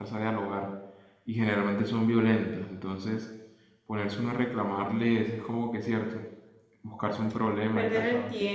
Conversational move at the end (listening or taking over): taking over